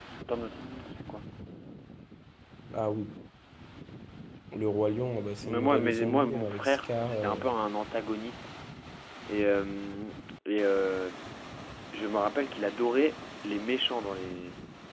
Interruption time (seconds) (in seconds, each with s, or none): 5.4 s